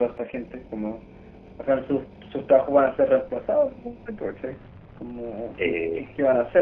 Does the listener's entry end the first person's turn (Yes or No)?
No